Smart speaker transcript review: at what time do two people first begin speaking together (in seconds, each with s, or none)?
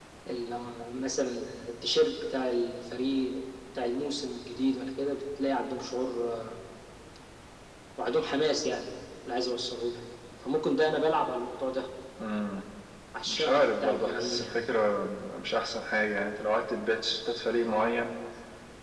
13.2 s